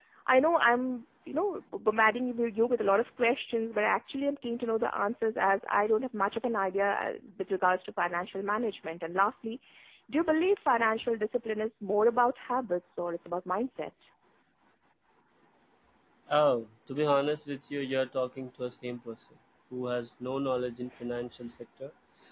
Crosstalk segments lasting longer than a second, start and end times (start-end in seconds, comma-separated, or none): none